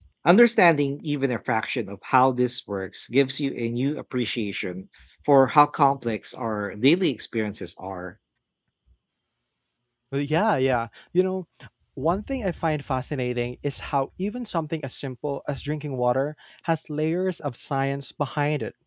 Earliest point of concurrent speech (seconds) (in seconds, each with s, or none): none